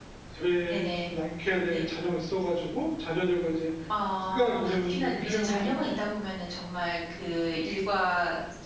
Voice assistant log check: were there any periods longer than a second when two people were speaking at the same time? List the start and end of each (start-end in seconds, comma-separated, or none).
4.3-5.7